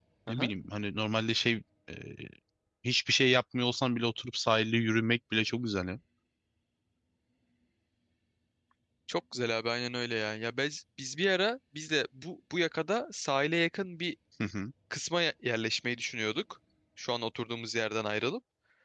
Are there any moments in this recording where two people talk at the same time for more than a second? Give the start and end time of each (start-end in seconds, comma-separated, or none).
none